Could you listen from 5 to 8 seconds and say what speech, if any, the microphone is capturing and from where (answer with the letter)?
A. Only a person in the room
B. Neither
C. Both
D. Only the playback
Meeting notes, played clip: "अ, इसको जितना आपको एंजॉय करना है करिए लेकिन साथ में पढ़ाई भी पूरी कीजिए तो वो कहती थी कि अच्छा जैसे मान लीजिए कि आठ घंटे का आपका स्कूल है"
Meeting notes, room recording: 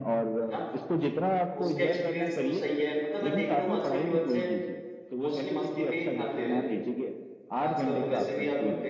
C